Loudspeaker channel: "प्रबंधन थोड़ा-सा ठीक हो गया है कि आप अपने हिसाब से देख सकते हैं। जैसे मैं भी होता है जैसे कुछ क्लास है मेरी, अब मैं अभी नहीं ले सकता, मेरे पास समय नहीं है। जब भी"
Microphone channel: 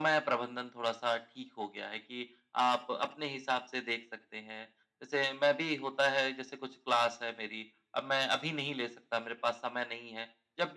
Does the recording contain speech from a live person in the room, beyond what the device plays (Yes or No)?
No